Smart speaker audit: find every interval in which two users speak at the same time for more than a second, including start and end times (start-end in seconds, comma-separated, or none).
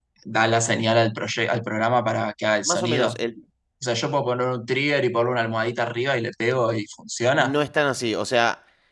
none